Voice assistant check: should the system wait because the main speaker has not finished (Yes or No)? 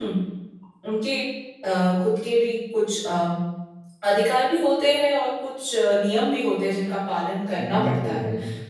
No